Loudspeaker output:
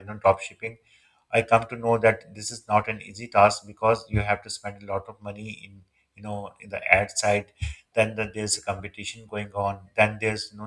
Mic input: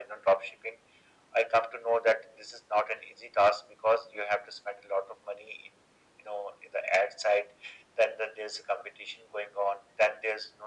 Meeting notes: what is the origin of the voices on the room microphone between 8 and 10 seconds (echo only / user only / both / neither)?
echo only